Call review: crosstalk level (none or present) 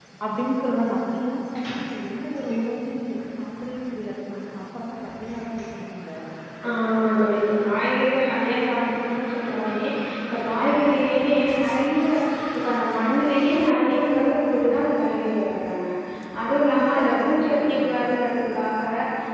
present